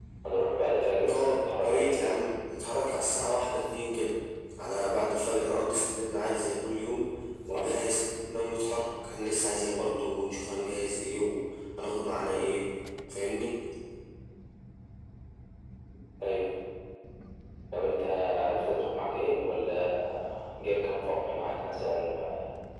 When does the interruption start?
1.1 s

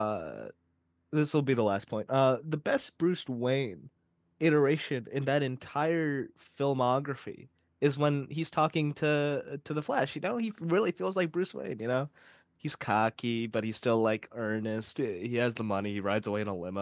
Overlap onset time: none

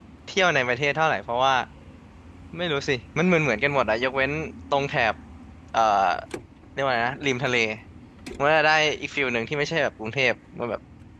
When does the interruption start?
none

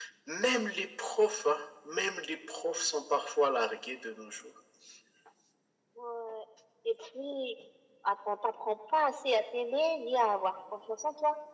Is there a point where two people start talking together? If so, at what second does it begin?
none

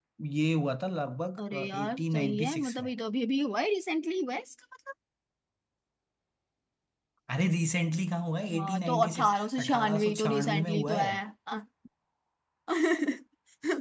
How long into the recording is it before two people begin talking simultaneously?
1.5 s

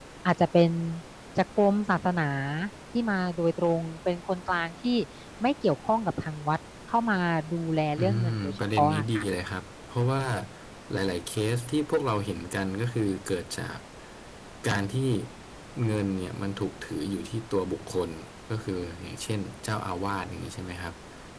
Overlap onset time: 8.0 s

